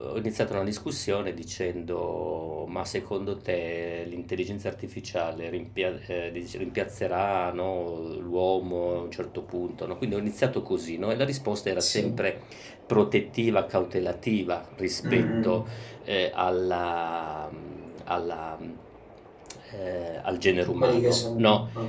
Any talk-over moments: Yes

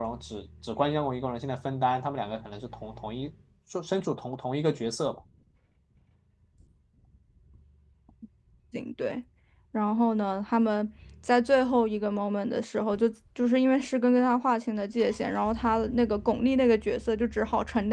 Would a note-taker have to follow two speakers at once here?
No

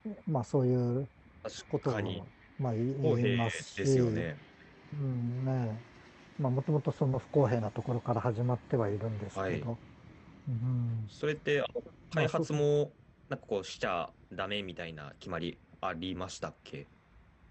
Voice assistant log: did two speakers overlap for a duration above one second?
Yes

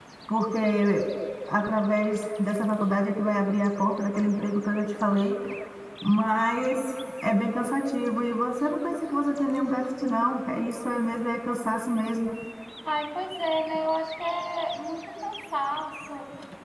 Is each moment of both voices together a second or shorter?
Yes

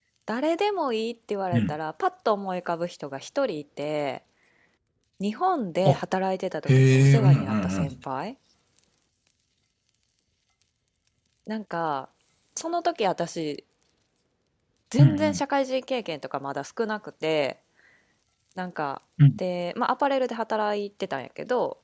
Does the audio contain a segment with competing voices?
Yes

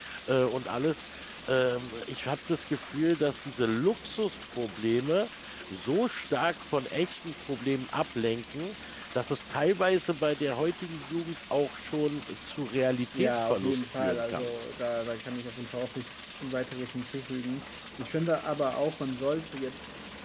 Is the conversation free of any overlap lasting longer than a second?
No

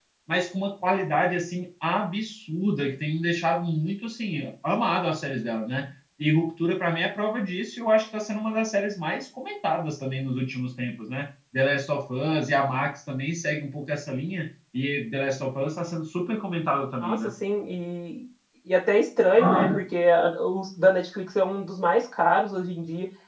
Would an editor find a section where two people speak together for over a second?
No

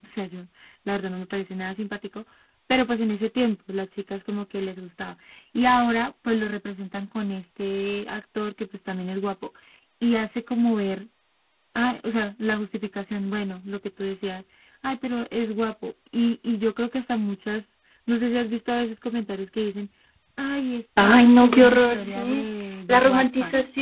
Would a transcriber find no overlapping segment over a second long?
No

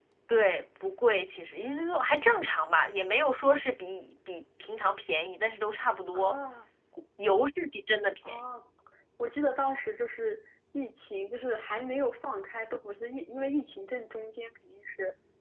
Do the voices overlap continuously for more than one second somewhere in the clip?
No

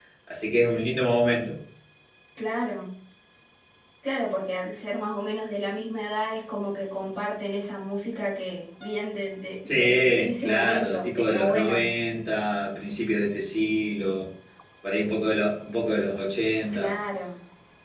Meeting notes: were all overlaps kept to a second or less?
No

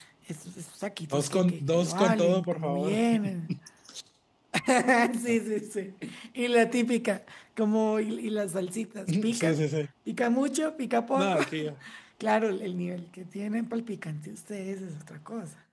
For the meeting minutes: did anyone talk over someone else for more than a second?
Yes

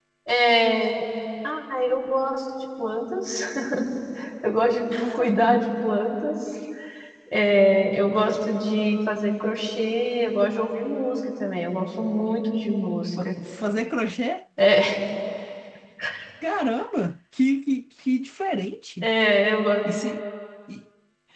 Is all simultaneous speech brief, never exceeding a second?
Yes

